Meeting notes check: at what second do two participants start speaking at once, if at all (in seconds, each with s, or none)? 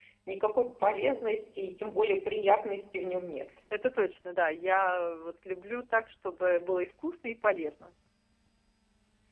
none